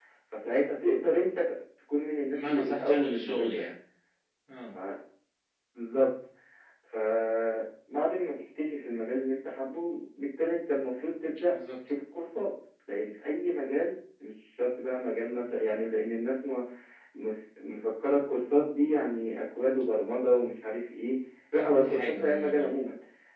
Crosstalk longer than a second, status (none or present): present